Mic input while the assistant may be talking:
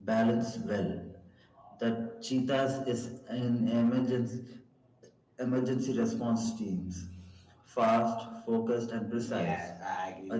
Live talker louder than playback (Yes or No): No